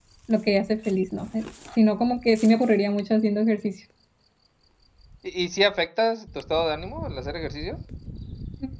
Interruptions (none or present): none